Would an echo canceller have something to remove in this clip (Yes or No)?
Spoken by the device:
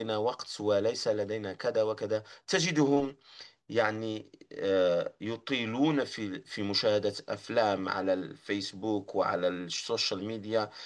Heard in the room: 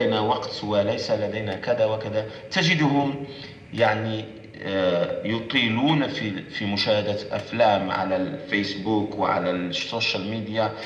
Yes